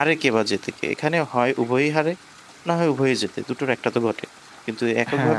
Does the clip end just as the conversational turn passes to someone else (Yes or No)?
Yes